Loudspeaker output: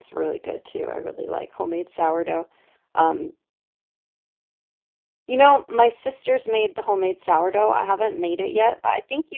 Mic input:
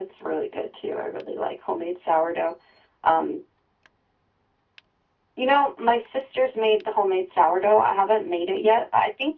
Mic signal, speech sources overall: echo only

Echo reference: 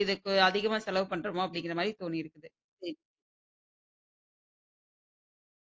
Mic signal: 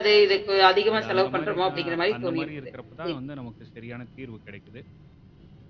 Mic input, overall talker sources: both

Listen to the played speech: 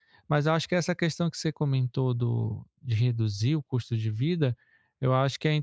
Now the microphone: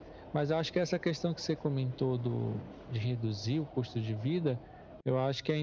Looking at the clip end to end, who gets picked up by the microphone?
echo only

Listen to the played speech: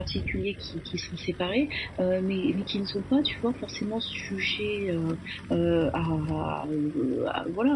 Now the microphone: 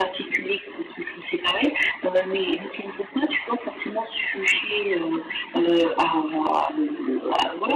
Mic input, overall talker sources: echo only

